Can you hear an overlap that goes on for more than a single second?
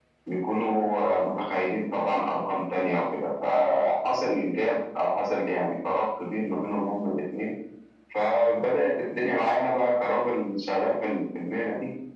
No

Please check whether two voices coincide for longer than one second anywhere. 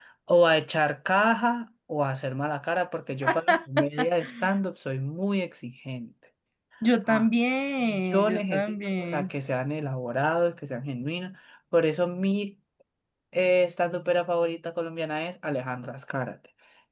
Yes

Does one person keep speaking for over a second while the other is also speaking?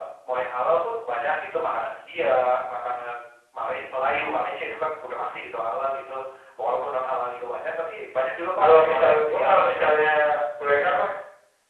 Yes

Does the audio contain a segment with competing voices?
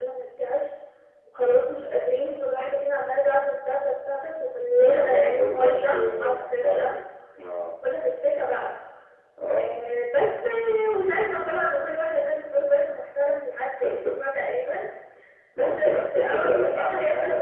Yes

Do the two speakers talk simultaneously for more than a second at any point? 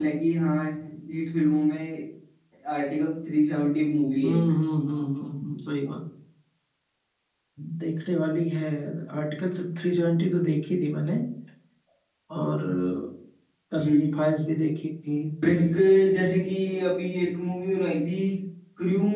No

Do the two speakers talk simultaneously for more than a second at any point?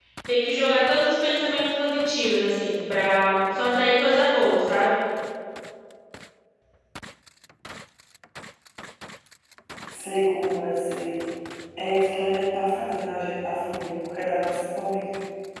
No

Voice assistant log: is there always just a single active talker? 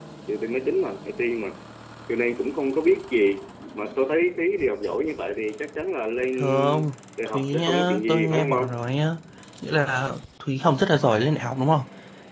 No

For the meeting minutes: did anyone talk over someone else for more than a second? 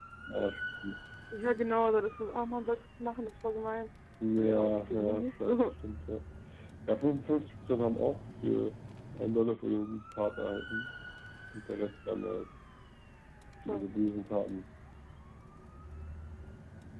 Yes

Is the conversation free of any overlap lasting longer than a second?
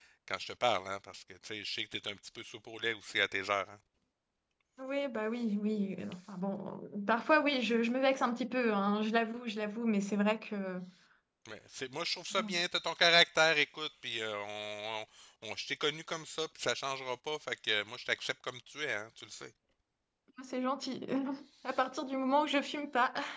Yes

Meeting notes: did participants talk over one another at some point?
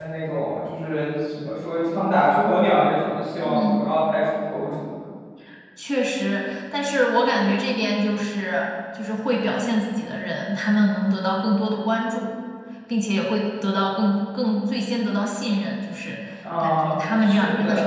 Yes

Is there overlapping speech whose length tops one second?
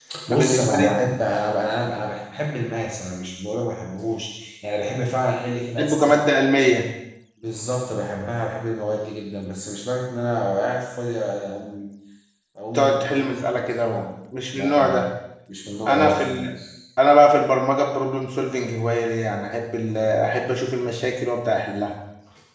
Yes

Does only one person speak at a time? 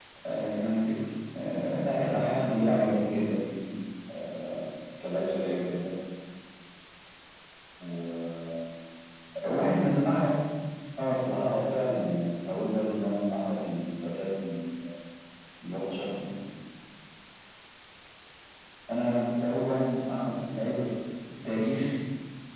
No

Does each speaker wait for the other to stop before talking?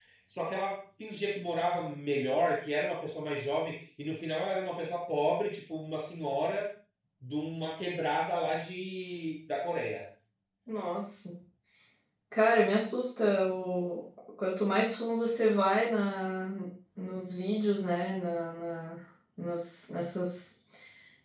Yes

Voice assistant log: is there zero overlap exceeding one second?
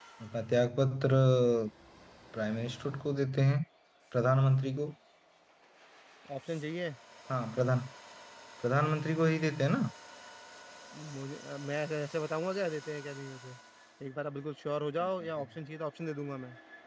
Yes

